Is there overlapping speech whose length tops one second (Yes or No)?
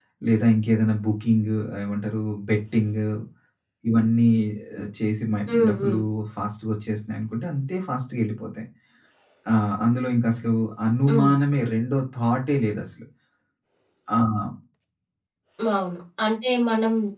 No